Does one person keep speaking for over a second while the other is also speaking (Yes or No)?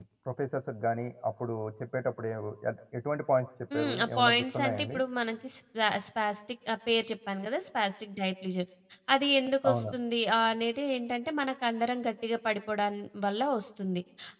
Yes